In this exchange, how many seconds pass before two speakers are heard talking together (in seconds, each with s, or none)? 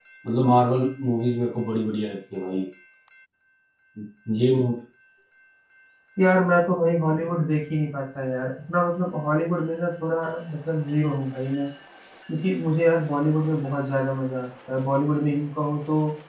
none